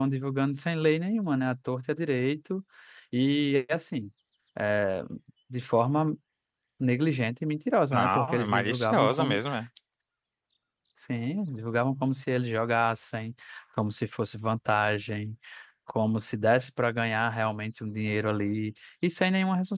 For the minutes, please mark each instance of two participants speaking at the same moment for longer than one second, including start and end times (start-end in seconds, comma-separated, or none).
7.9-9.4